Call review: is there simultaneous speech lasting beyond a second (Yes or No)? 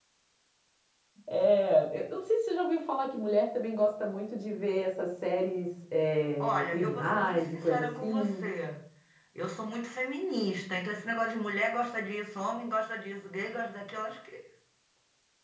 Yes